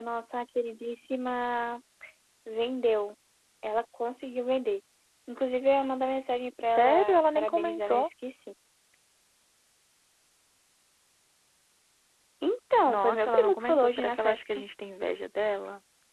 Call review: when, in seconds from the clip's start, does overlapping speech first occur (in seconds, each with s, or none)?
6.6 s